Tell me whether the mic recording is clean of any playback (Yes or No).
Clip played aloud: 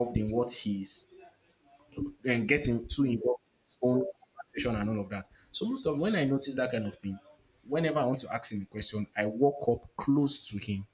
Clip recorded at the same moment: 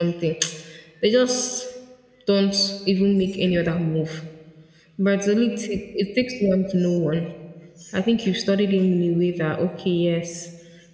Yes